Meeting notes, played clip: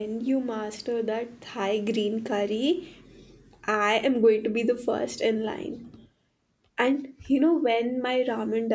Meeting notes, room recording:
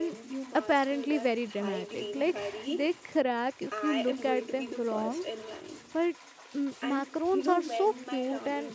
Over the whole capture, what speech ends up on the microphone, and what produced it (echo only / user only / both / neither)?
both